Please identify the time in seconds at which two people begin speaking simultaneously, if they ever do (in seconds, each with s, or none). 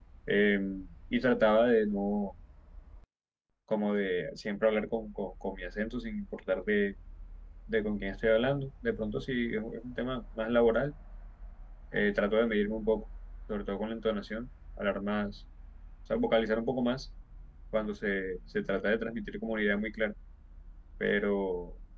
none